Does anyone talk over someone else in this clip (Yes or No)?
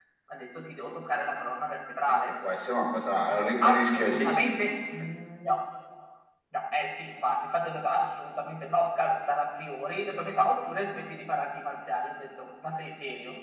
Yes